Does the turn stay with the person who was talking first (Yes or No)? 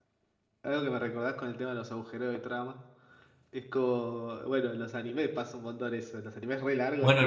No